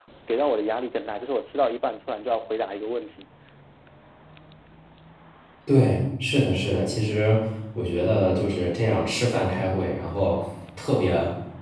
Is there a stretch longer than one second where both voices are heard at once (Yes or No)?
No